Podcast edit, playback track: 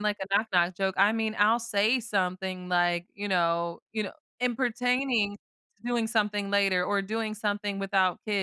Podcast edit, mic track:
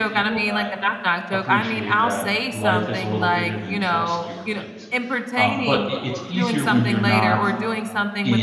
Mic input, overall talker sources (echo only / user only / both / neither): both